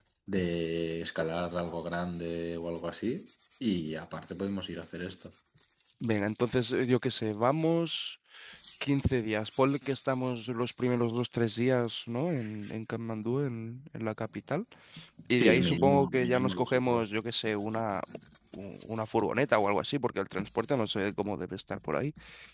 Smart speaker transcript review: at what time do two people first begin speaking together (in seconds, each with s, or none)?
15.4 s